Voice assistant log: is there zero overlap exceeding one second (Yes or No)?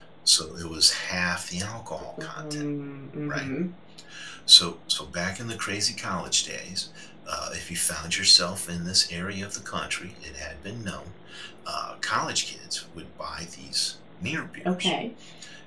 Yes